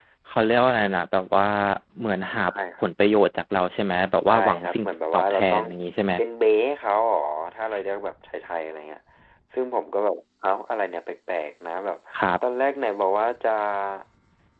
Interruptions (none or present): present